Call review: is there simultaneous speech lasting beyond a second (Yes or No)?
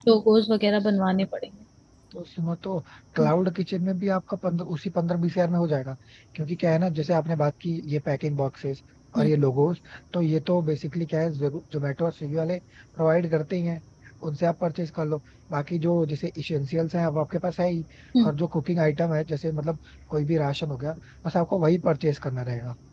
No